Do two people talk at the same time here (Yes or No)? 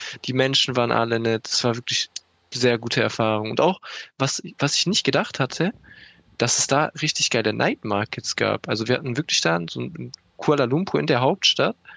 No